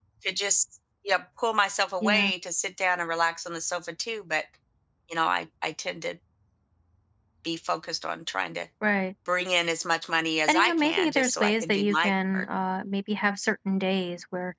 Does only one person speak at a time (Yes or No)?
No